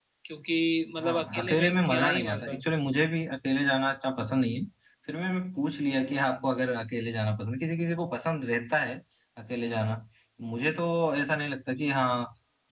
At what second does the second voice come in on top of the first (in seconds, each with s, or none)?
1.0 s